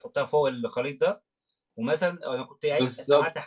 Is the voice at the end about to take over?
No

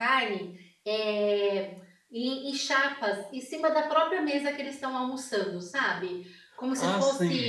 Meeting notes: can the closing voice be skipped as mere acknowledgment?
No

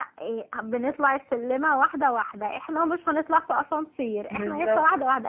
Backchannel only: Yes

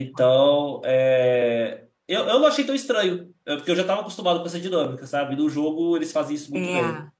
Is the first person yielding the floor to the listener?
Yes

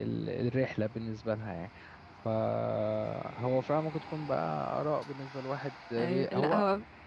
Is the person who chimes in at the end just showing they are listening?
No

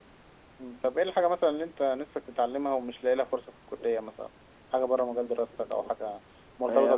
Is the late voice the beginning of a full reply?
Yes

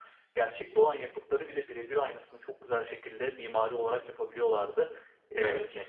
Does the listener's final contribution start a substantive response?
No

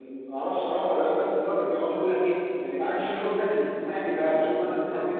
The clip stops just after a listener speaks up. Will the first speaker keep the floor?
Yes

